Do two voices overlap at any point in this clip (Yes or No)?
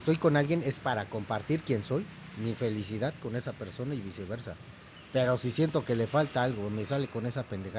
No